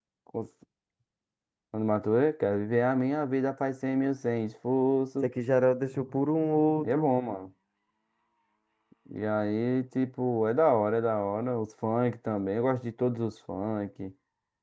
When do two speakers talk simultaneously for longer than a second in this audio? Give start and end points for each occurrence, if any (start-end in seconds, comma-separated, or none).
none